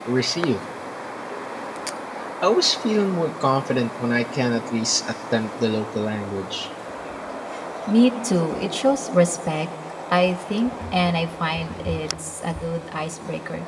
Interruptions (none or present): none